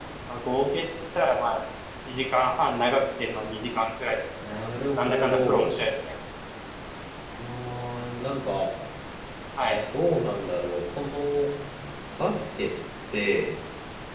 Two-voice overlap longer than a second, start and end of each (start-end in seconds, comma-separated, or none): 4.4-5.7